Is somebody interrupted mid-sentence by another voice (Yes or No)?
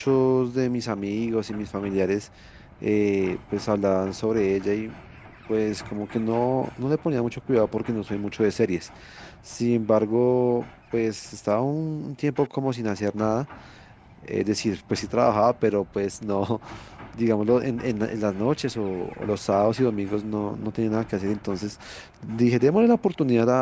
No